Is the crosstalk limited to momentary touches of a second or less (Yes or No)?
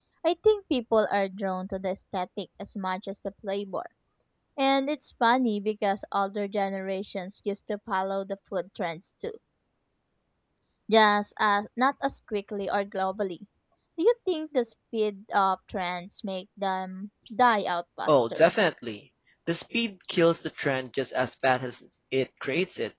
Yes